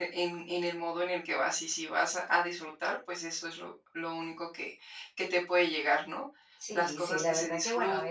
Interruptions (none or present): present